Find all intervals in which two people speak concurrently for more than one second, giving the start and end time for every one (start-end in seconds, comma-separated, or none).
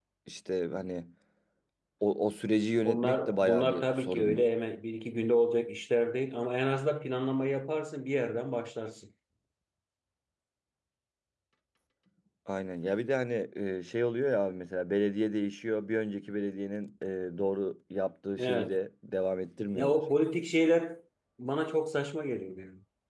2.8-4.4